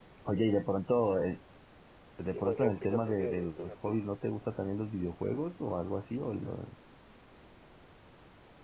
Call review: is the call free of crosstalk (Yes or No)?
No